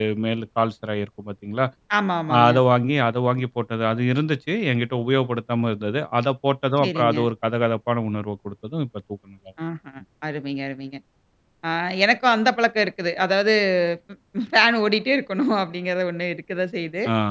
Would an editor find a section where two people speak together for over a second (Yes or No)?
No